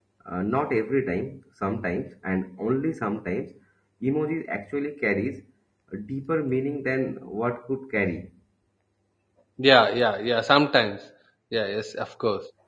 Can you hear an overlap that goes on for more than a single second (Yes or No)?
No